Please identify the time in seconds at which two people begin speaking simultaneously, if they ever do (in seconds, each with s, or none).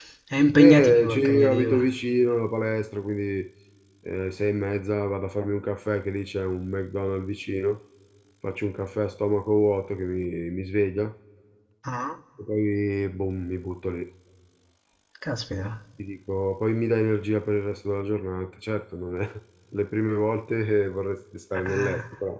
0.6 s